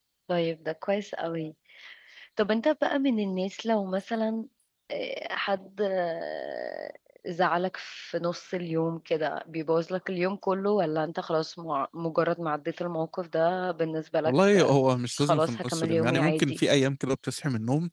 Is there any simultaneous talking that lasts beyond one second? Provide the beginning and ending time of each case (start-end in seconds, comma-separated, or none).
15.2-16.6